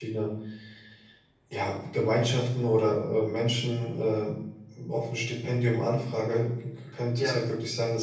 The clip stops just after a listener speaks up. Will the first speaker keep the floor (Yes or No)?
Yes